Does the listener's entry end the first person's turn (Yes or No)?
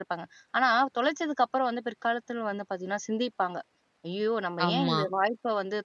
No